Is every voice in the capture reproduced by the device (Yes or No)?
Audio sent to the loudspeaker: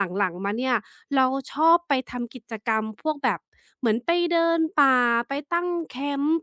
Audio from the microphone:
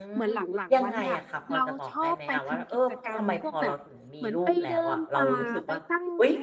No